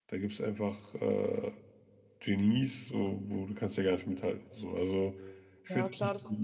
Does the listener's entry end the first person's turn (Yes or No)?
Yes